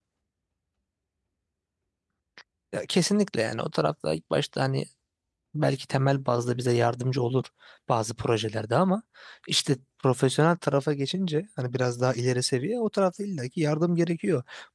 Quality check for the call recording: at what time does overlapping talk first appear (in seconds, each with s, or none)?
none